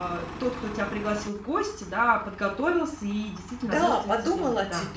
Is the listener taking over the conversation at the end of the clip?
Yes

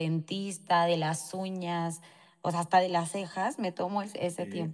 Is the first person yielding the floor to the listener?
No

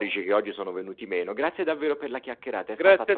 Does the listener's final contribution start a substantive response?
Yes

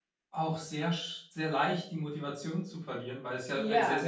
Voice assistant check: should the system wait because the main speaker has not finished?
Yes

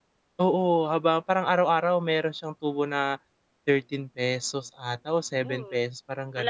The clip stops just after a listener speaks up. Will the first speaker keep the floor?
No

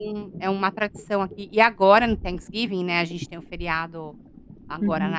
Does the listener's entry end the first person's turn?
No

